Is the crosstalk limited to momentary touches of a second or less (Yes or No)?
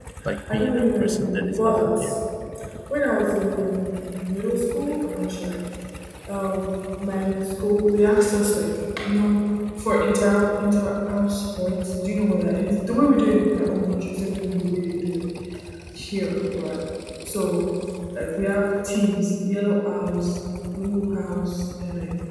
No